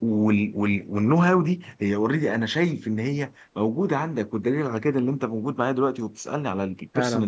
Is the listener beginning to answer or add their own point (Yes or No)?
Yes